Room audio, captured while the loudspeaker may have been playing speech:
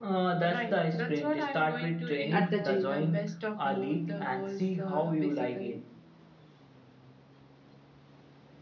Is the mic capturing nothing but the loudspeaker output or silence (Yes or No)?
No